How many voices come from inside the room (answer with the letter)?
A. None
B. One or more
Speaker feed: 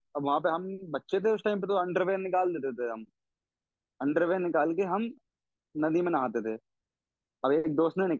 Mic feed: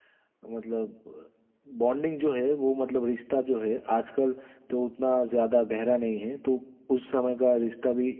B